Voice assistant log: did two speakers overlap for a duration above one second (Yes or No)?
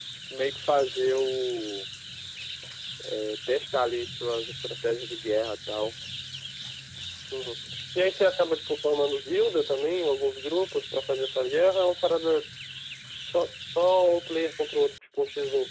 No